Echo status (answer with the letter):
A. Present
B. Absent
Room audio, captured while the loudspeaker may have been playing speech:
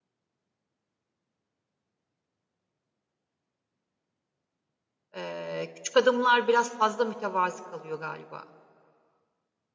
B